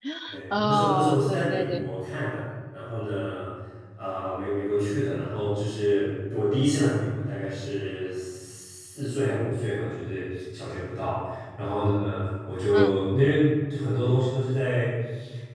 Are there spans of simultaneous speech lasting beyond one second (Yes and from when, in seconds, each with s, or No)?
Yes, from 0.5 s